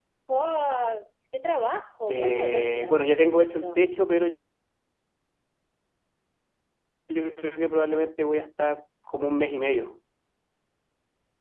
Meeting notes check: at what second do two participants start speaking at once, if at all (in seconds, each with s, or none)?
2.1 s